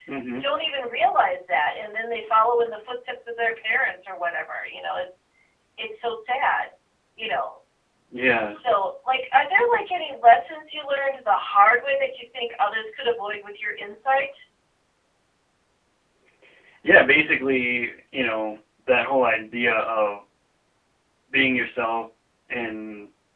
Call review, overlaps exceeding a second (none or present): none